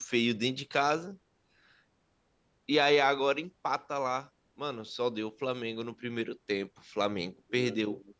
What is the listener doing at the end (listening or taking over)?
listening